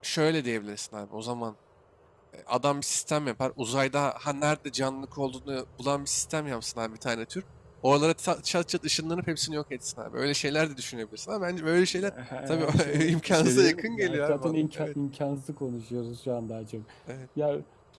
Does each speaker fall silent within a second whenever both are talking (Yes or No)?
No